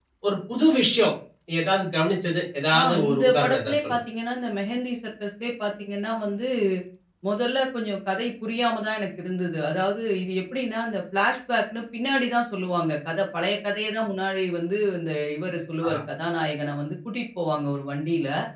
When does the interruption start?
2.7 s

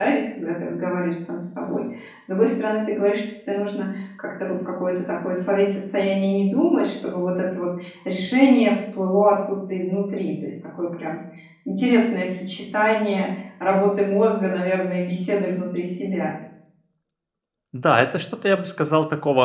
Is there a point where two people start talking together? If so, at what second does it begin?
none

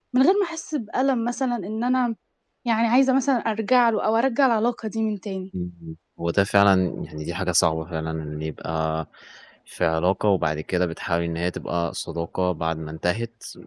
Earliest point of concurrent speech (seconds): none

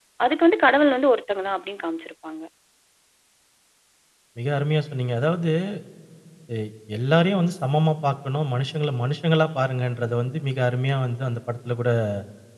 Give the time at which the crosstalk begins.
none

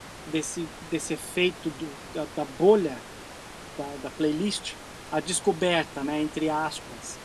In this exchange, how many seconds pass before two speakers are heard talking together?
none

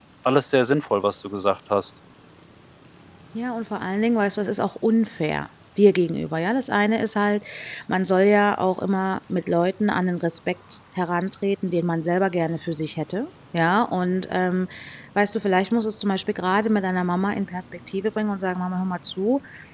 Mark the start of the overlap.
none

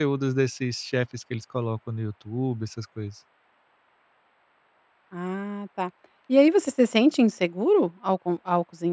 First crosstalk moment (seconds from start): none

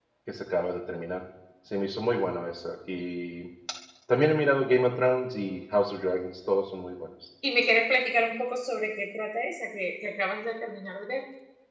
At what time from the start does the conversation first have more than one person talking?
none

